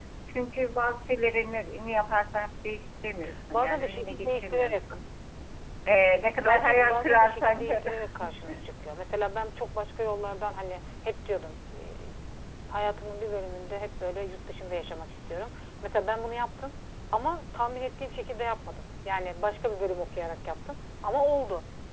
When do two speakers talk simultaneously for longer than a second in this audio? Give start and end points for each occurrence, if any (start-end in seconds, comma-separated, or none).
3.5-4.8, 6.4-7.8